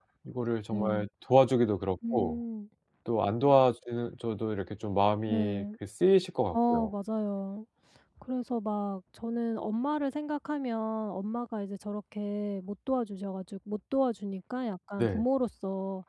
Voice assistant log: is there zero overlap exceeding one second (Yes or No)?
Yes